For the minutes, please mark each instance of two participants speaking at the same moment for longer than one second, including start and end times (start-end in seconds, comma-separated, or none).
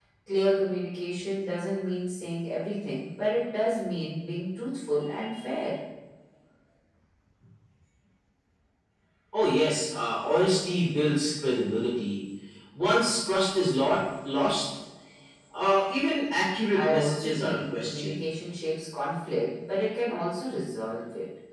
16.7-18.2